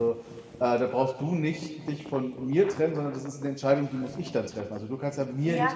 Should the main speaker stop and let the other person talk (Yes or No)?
Yes